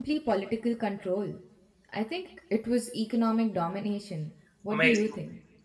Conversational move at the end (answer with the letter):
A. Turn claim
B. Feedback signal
A